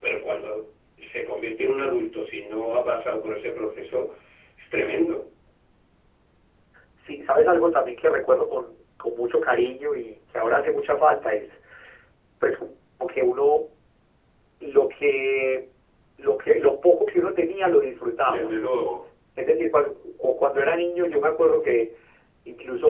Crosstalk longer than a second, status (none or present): none